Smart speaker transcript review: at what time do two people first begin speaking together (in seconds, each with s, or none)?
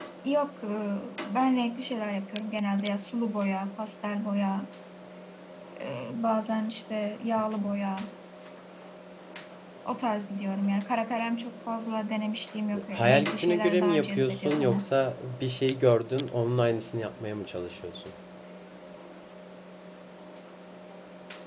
12.7 s